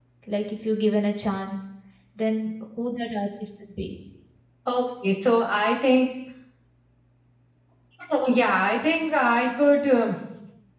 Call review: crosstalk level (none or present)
none